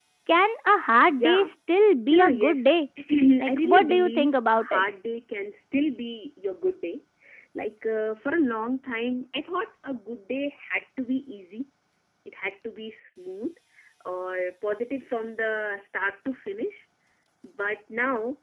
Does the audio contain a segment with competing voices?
Yes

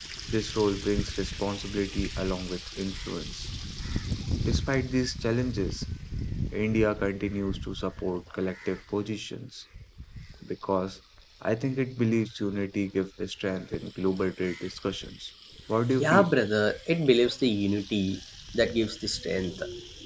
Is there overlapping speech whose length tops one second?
No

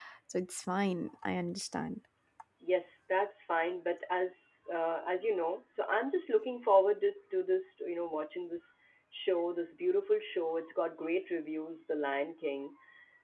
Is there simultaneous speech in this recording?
No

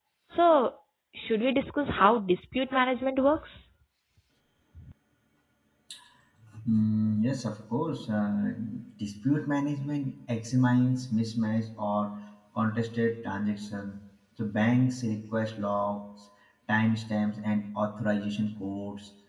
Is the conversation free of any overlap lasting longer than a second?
Yes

